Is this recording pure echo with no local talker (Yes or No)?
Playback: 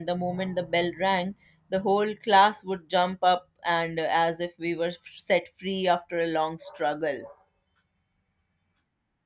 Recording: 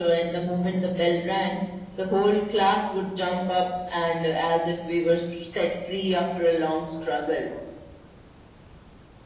Yes